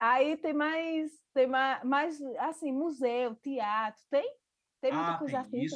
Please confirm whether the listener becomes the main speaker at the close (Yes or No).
Yes